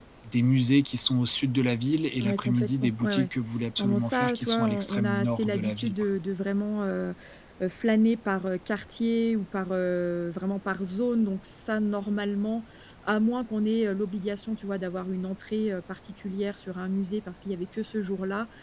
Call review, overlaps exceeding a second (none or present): present